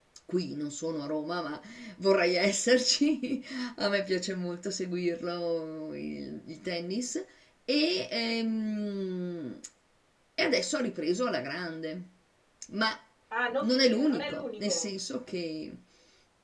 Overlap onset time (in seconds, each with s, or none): 13.6 s